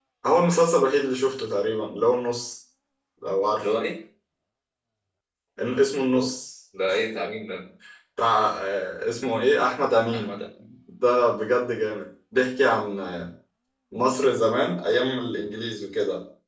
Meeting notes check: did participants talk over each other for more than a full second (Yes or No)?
No